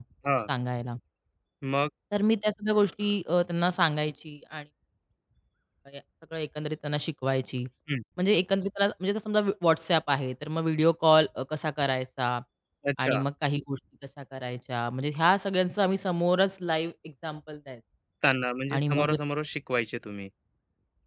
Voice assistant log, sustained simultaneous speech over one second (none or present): none